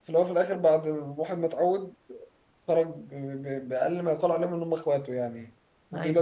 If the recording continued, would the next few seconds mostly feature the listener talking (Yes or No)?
No